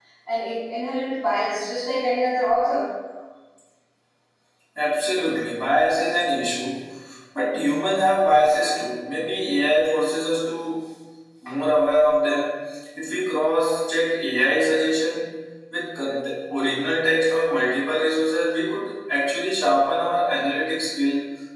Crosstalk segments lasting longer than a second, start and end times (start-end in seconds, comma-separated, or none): none